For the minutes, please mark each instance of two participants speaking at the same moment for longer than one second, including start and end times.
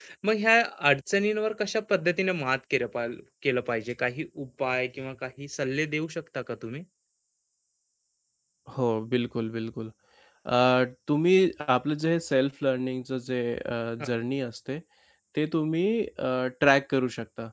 none

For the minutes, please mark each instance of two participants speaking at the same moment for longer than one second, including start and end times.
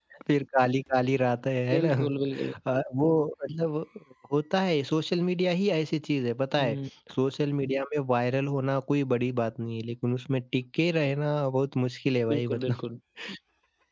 none

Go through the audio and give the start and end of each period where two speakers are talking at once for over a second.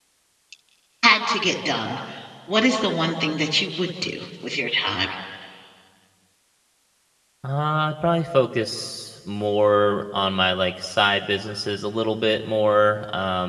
none

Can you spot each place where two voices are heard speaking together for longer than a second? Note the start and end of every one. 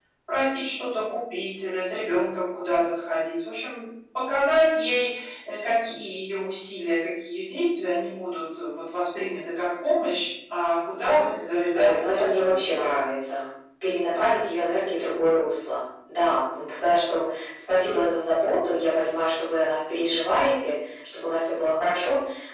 11.0-12.6

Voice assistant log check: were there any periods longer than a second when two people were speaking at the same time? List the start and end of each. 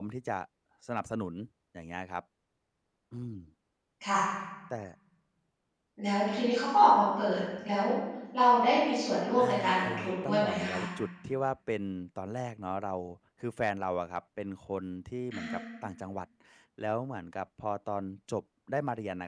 9.4-10.8

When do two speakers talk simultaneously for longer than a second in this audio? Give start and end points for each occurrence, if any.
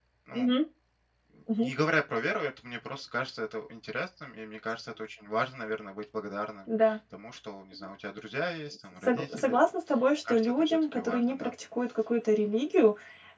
10.3-11.5

